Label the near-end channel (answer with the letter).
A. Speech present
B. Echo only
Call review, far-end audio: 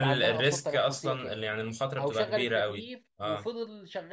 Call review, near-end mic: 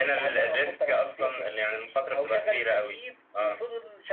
B